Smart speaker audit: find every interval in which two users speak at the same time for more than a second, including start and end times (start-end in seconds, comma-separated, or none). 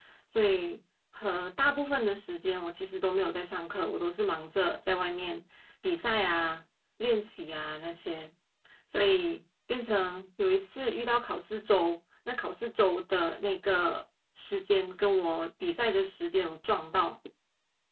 none